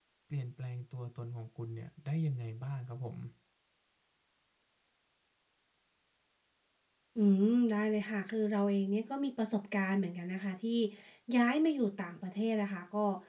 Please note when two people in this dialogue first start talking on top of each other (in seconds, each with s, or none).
none